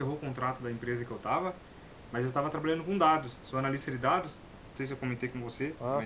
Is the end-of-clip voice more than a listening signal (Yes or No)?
No